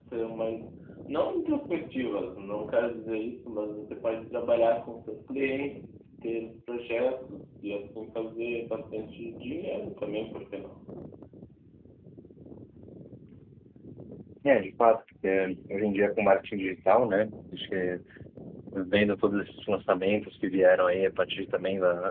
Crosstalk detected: No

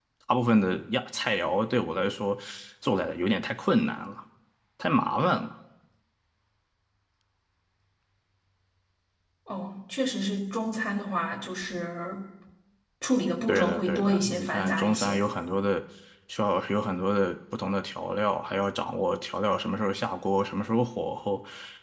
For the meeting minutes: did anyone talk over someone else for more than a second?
Yes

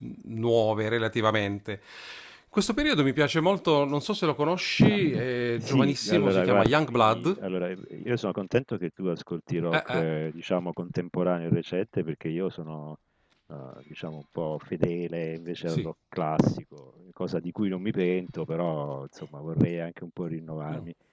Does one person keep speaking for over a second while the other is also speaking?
Yes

